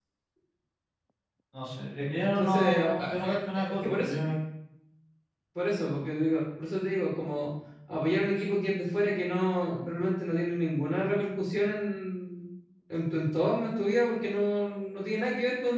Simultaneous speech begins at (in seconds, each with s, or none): 2.4 s